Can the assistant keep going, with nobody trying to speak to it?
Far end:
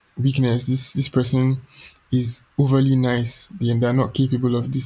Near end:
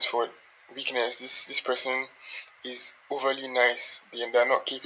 Yes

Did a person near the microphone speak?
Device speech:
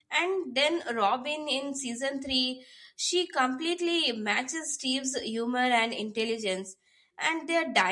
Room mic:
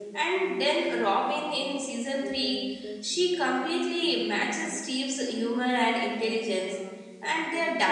Yes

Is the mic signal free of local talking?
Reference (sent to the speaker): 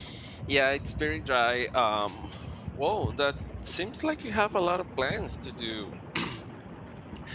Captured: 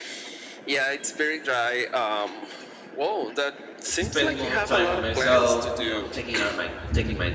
No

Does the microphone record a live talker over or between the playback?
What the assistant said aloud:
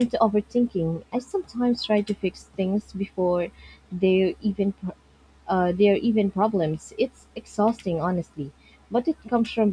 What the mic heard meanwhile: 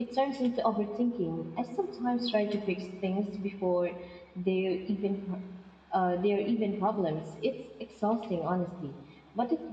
No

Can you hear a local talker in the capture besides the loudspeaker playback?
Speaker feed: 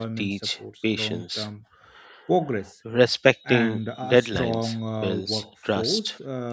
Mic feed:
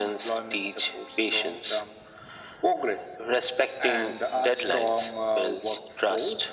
No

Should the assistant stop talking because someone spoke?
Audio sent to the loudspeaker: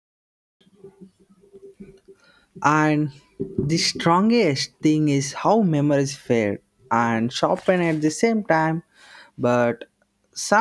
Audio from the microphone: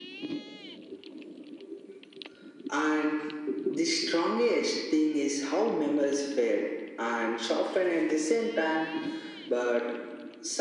No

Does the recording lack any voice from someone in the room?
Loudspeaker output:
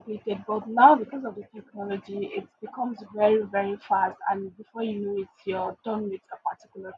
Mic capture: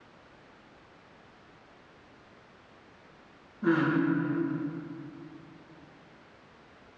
No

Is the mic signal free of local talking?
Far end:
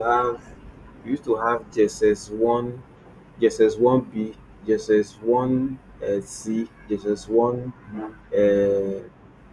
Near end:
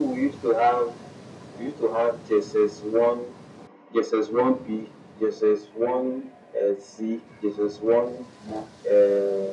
Yes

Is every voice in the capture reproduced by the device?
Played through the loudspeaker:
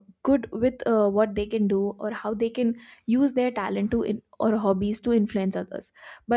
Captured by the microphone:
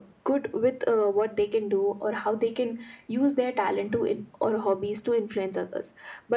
Yes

